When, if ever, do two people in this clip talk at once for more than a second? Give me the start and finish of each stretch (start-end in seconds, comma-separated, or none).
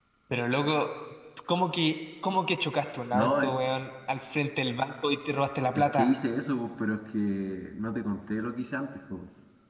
none